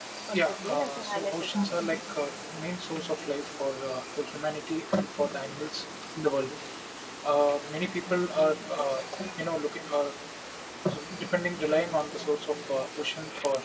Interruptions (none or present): present